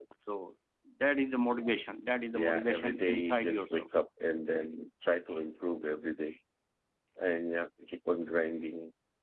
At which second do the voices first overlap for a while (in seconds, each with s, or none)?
2.3 s